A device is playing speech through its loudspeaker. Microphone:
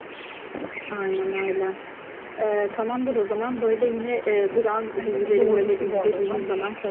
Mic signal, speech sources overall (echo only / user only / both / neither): both